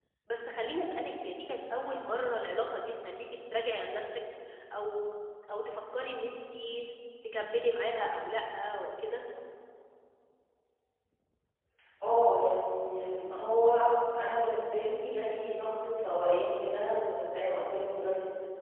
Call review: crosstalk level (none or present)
none